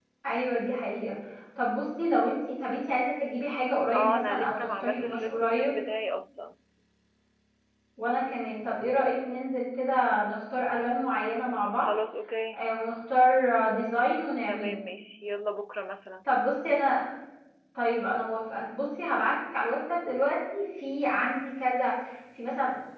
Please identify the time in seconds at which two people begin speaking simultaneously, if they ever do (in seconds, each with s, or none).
3.9 s